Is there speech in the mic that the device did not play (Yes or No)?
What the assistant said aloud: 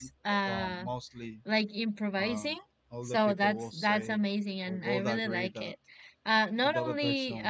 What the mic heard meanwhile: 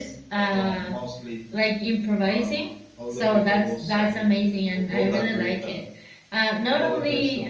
No